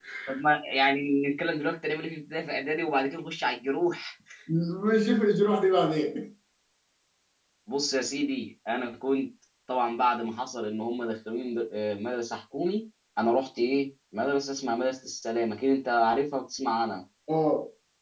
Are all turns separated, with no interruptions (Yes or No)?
Yes